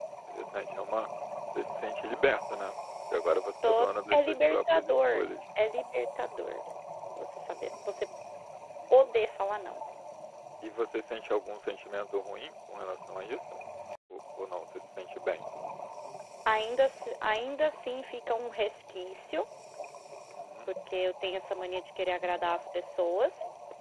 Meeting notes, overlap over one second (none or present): present